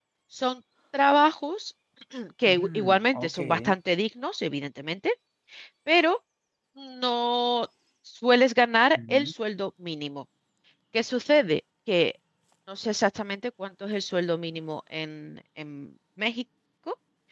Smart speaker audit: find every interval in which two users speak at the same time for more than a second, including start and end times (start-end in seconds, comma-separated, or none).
2.5-3.7